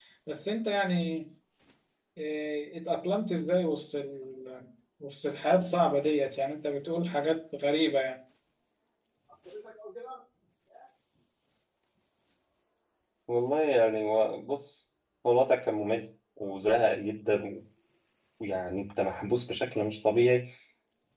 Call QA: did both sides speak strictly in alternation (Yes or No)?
Yes